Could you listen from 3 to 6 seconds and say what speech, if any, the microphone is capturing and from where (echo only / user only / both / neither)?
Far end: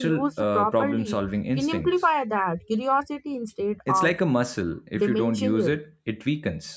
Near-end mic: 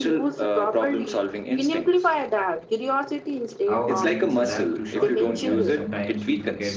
both